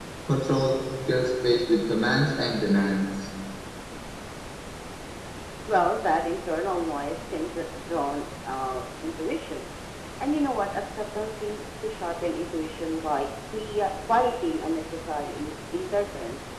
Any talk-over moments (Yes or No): No